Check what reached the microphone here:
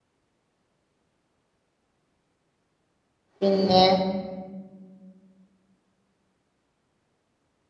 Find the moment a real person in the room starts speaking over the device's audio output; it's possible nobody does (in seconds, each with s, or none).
3.4 s